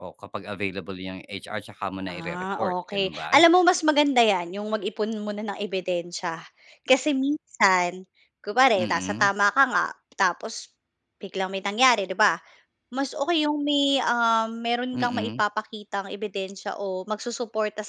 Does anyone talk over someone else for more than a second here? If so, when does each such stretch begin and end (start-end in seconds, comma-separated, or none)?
2.1-3.4